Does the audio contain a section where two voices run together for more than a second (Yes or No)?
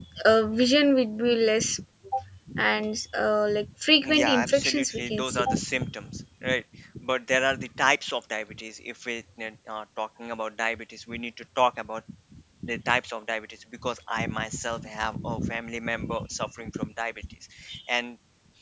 Yes